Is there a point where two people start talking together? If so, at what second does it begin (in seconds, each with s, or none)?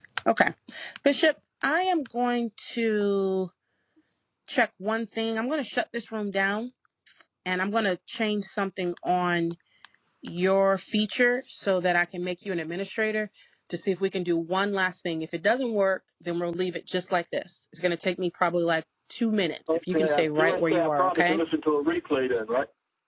19.7 s